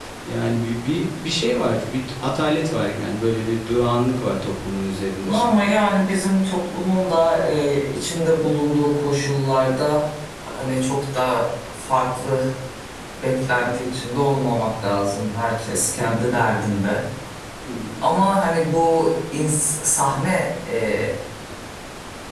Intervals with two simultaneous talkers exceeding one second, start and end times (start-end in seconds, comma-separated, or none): none